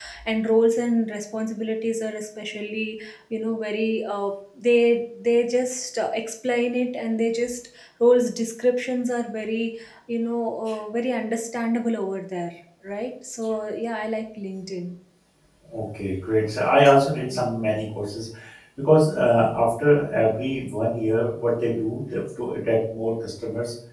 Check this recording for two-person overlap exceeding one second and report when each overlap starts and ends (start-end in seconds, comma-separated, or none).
none